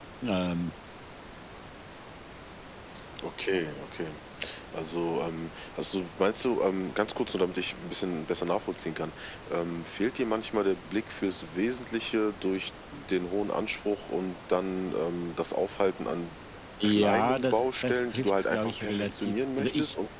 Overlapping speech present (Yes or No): Yes